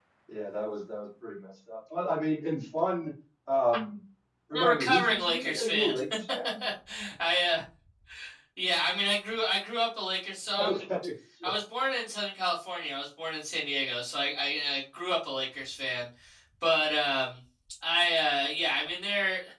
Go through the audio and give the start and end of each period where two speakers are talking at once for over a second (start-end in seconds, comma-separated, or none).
4.5-5.9